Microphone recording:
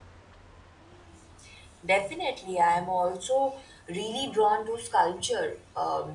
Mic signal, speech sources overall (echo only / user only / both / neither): user only